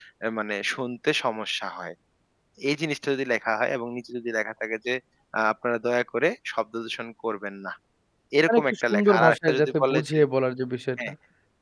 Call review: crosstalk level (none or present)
present